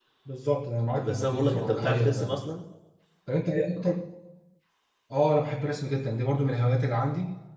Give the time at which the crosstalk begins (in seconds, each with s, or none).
1.0 s